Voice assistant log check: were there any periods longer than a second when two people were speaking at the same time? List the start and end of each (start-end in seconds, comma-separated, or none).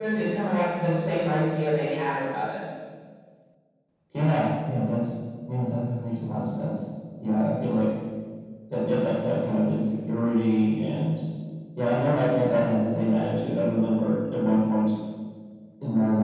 none